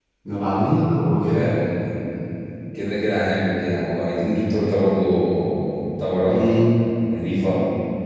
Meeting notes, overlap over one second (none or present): none